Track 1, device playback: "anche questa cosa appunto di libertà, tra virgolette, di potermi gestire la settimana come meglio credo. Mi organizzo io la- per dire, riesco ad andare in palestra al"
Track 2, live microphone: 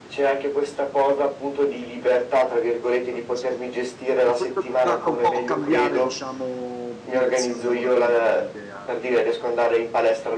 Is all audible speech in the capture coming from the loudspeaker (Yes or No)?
No